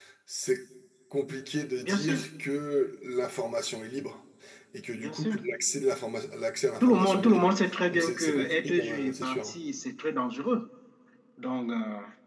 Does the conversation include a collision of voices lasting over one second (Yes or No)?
Yes